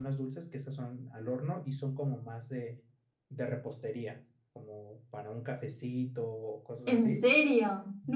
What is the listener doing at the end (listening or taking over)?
taking over